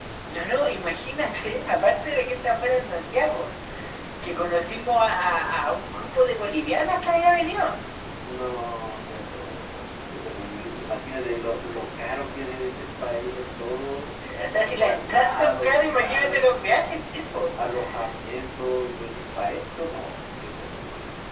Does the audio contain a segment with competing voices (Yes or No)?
Yes